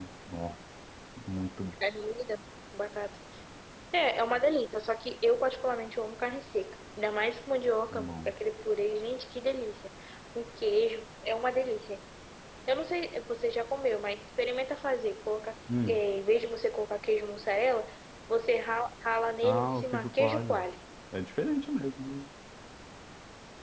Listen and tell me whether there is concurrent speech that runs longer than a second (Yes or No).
Yes